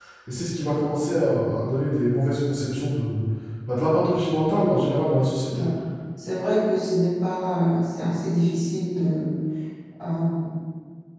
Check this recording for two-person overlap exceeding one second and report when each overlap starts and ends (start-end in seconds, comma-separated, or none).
none